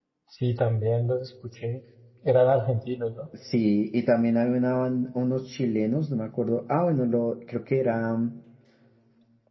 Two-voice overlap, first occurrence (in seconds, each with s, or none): none